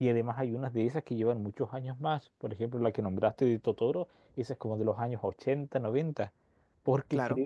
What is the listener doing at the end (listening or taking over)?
listening